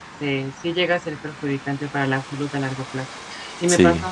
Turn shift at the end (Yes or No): No